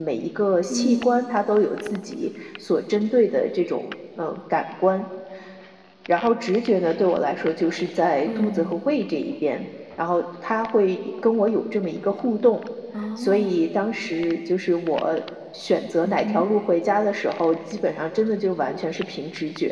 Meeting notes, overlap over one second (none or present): none